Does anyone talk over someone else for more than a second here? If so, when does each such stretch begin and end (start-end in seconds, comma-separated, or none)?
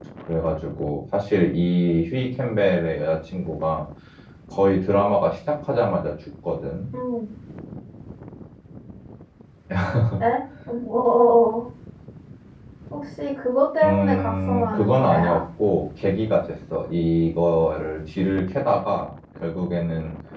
13.8-15.4